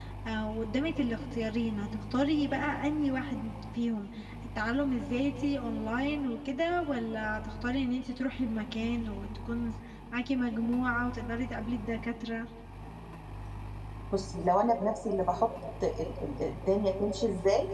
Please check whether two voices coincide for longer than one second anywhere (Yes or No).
No